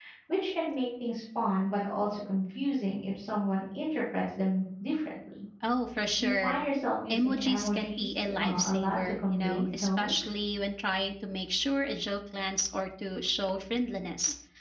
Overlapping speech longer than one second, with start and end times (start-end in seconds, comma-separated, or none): 7.1-10.2